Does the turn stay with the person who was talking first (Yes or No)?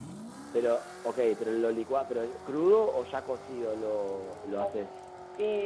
No